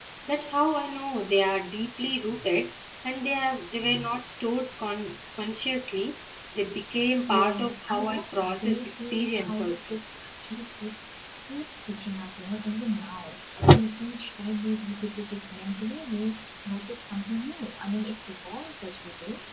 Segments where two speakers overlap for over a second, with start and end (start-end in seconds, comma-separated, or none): 7.3-9.7